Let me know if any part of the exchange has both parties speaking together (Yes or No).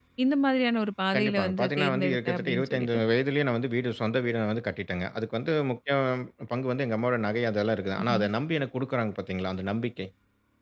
Yes